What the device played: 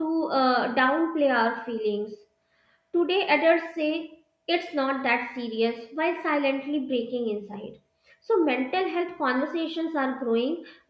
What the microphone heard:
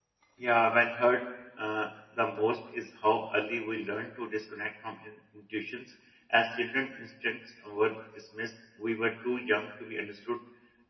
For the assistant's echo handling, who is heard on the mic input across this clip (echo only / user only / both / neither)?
user only